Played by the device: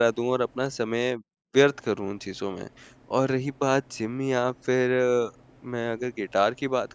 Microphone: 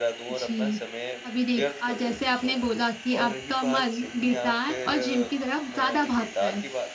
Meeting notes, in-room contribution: present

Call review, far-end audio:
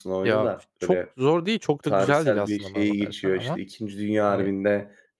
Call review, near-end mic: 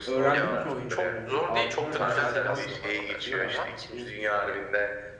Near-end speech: present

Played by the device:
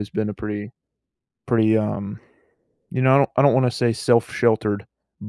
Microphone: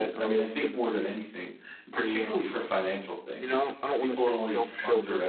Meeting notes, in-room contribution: present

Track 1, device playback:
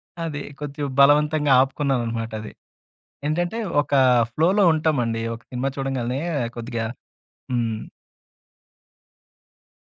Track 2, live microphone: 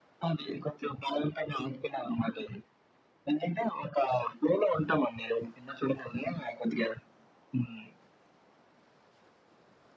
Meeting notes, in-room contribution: none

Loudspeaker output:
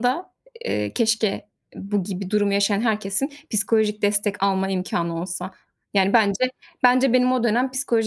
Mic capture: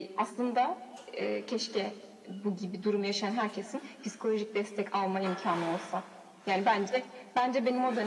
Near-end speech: none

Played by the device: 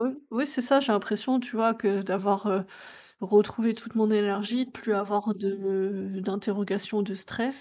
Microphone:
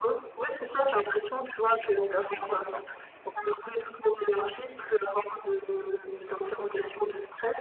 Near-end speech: present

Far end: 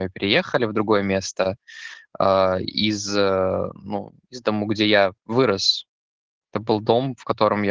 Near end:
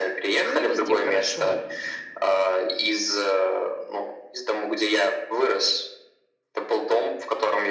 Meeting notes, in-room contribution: present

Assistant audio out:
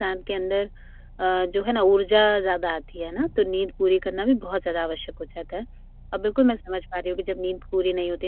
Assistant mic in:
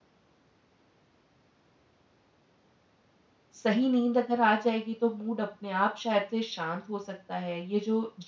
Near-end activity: present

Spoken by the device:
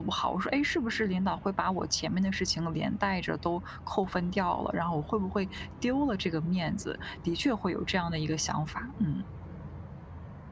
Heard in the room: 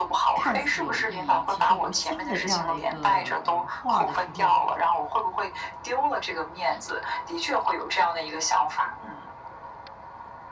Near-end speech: present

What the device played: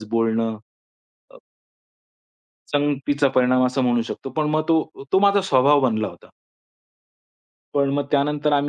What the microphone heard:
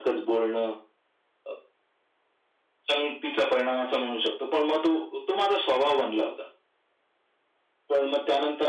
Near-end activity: none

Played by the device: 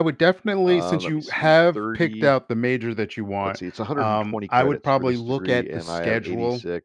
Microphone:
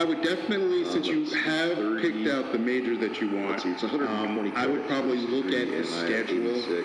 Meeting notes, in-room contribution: none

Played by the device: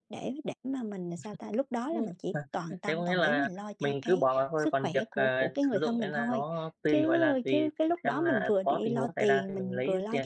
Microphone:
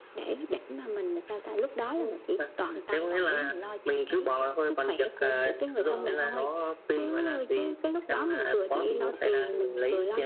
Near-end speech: present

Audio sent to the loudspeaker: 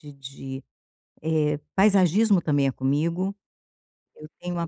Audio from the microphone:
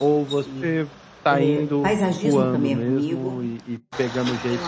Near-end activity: present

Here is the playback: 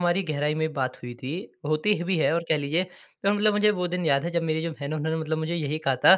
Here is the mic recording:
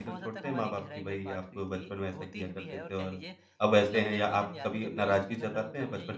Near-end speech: present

